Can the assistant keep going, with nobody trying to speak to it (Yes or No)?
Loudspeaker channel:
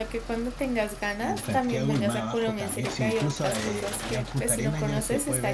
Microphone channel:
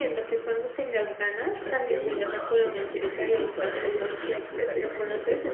Yes